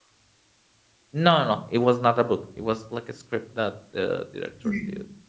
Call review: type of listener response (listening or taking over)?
listening